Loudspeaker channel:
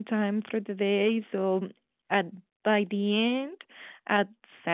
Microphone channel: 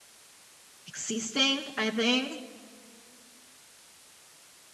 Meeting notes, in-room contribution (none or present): present